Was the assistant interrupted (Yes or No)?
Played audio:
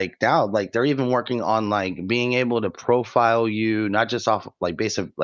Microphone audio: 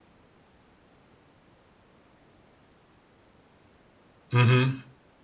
Yes